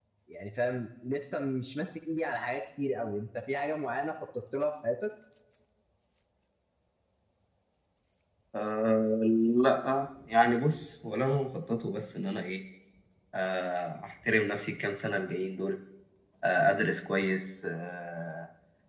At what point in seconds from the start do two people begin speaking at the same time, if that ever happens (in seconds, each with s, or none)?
none